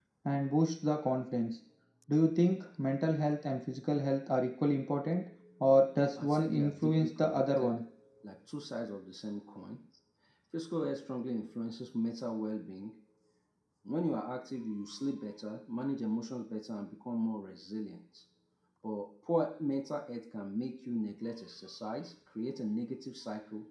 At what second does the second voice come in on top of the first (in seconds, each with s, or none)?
6.2 s